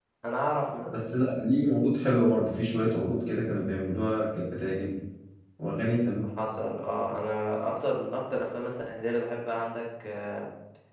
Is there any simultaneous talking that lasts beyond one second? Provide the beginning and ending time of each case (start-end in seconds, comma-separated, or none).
none